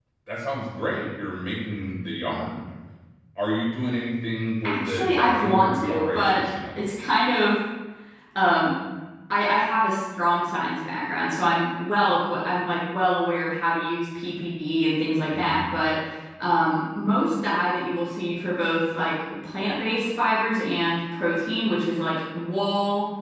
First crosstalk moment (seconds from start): 4.6 s

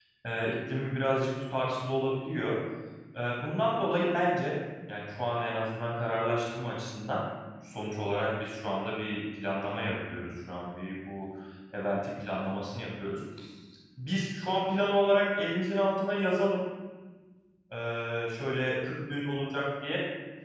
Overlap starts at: none

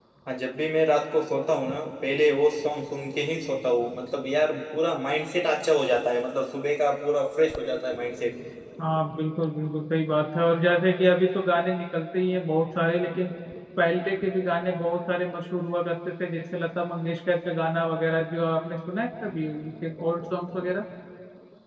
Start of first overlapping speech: none

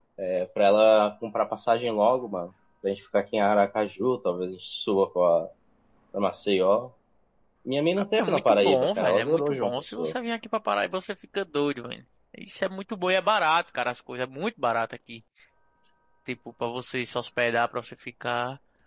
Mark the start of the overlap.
8.2 s

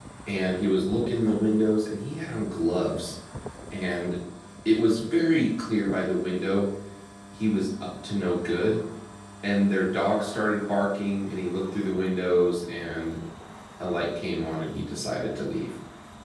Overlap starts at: none

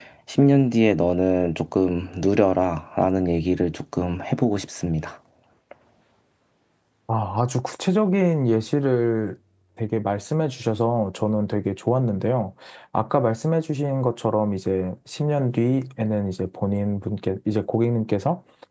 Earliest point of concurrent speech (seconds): none

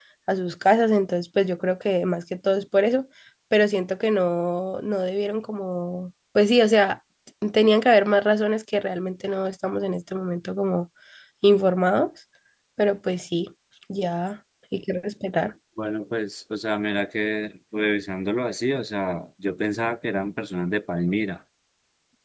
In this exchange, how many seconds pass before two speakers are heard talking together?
none

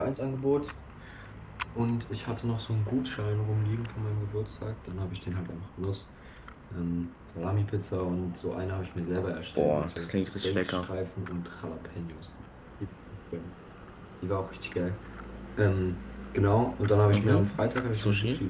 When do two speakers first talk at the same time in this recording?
9.6 s

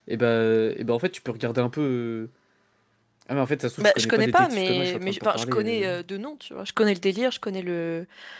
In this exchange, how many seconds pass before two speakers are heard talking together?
3.8 s

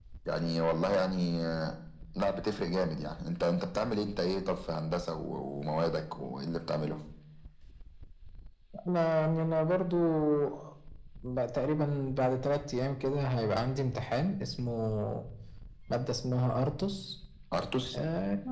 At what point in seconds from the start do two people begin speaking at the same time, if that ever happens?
none

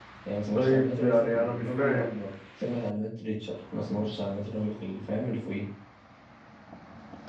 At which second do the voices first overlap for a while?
0.6 s

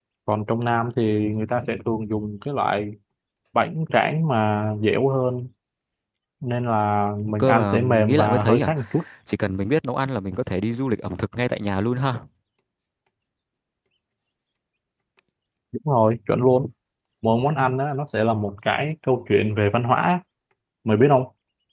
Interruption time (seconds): 7.2 s

